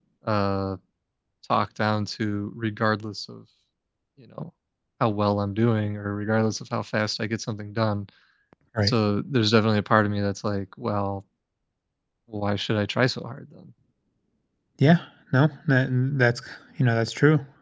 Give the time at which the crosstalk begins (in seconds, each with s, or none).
none